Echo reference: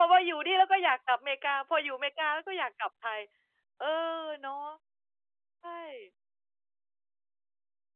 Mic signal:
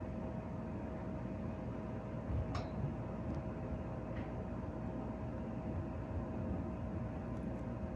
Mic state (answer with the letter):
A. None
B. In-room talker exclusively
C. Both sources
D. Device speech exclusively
A